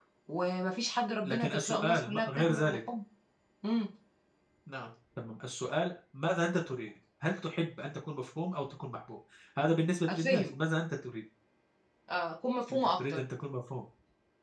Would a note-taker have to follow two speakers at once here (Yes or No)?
Yes